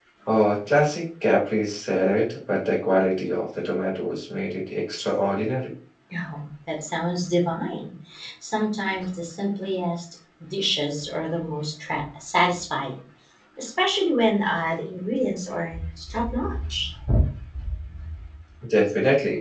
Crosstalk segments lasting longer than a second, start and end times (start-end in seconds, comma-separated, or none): none